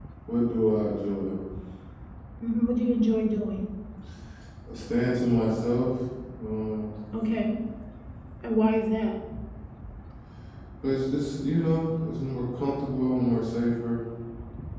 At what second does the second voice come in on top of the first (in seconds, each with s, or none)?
none